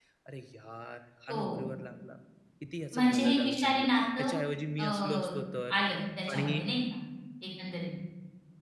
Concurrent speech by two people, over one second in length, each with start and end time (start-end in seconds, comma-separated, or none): 3.0-4.3